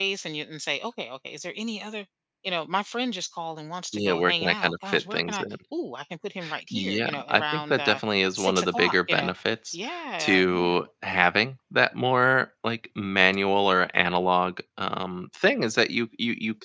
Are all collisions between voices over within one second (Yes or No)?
No